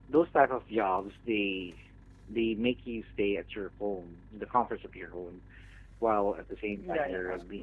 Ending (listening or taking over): taking over